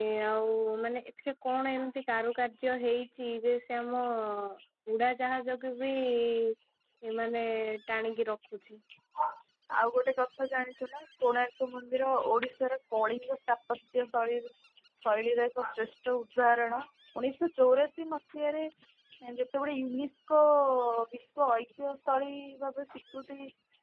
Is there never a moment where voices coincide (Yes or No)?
Yes